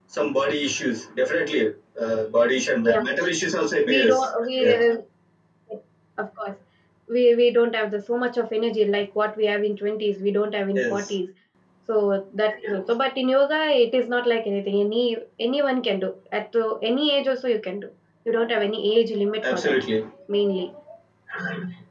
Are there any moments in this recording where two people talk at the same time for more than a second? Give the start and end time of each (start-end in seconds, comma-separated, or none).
none